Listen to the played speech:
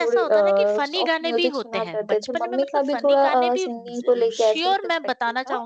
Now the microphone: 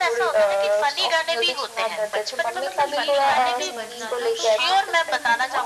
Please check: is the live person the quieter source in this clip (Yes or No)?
Yes